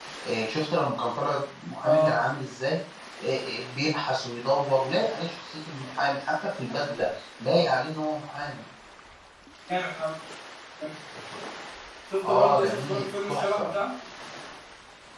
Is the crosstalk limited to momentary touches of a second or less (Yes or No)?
No